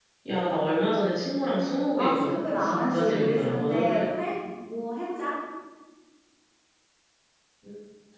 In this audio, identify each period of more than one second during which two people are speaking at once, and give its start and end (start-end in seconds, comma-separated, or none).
2.0-4.1